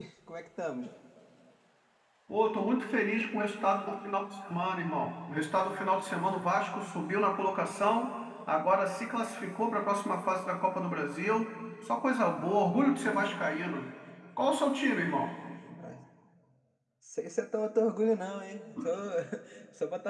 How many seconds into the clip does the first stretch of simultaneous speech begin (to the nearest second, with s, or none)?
none